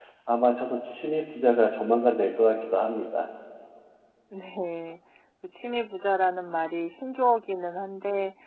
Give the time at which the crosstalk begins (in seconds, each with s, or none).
none